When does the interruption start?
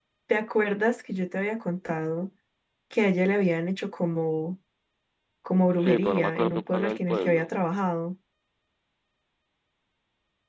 5.8 s

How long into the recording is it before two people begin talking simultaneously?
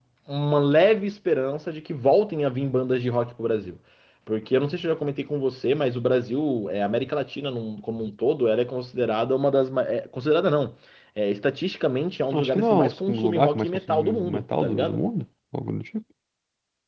12.3 s

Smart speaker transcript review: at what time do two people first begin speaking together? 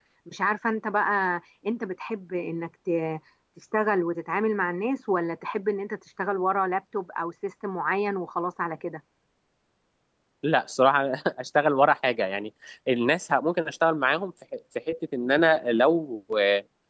none

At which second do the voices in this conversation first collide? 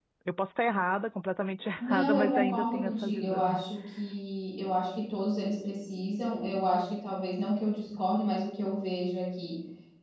1.8 s

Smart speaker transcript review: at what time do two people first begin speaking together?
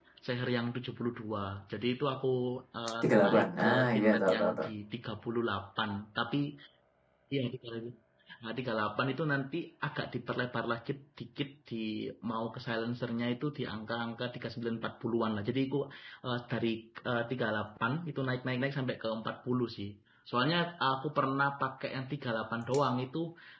3.0 s

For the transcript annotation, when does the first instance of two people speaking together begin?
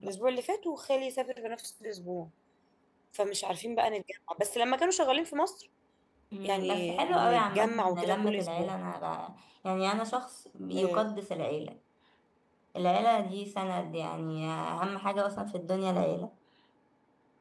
6.4 s

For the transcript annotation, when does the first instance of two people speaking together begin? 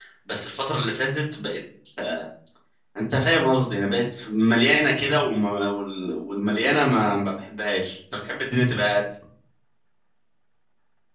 none

